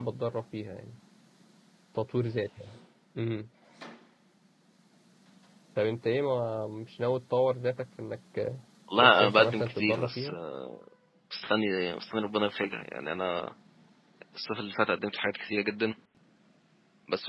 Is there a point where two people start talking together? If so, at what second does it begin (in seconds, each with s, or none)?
9.0 s